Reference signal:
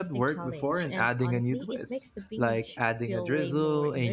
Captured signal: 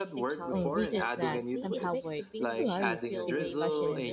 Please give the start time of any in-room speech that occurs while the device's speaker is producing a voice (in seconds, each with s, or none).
0.5 s